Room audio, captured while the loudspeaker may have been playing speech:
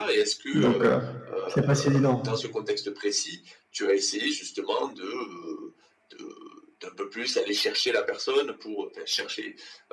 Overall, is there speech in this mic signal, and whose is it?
both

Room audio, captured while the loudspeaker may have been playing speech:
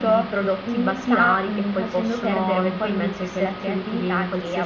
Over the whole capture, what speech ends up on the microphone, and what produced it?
echo only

